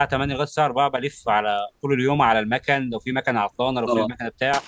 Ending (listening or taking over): listening